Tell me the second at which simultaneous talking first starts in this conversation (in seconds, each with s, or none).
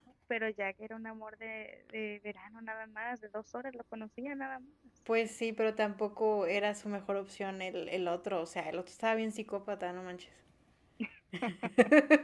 none